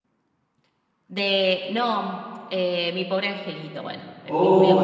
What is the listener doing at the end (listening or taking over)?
taking over